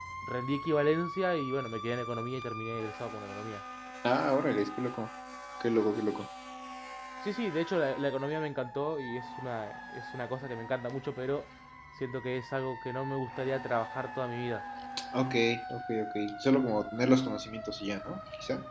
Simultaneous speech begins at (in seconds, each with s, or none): none